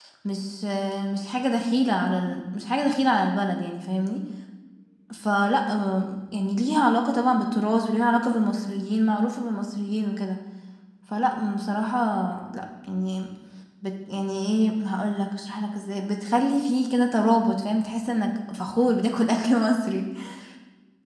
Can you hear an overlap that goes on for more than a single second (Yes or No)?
No